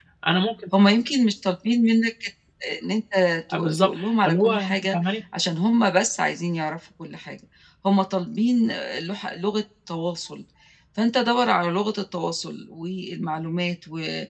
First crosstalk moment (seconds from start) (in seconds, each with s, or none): 3.5 s